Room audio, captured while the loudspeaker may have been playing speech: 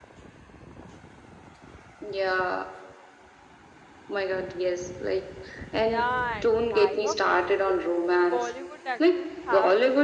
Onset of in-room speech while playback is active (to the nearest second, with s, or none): 6 s